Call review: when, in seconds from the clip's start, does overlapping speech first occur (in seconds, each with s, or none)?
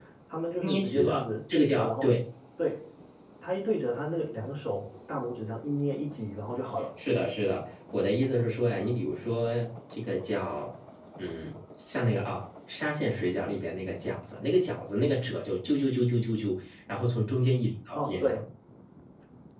0.6 s